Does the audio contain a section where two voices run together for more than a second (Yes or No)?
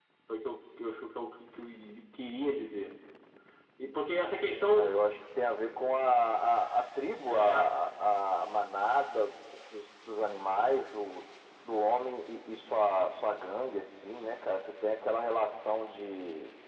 No